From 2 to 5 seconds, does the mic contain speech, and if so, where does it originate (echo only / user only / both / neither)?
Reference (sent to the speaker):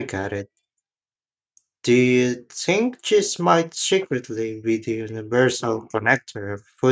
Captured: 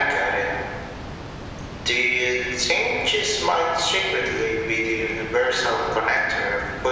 echo only